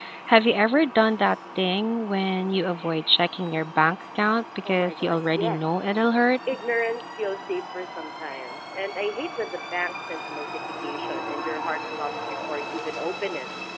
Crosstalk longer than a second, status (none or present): present